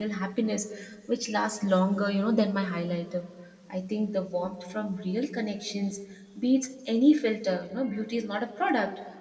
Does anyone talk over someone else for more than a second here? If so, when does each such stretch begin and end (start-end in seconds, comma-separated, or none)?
none